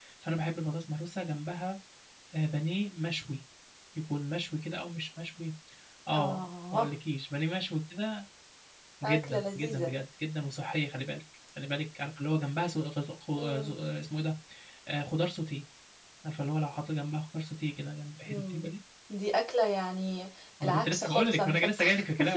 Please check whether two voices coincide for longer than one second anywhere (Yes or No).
Yes